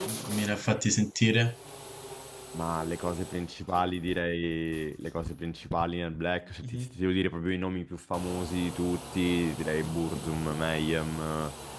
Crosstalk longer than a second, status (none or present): none